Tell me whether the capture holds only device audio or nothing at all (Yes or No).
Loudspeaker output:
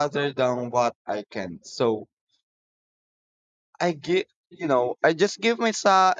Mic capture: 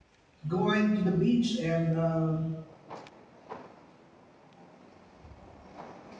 No